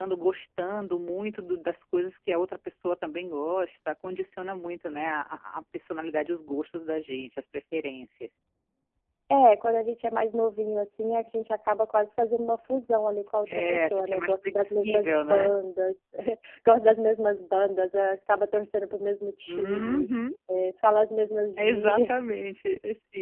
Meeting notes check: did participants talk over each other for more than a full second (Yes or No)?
Yes